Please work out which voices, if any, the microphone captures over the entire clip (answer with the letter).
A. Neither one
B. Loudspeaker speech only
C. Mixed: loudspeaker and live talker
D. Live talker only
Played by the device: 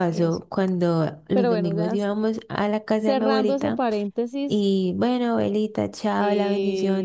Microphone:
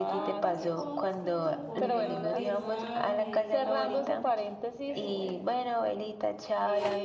C